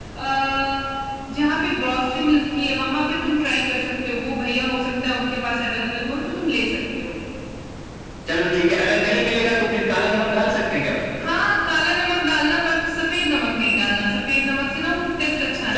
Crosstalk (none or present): none